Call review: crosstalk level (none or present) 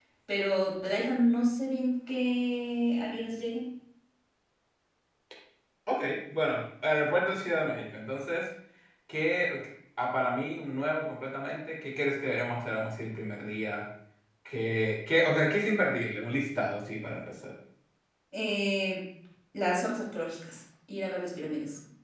none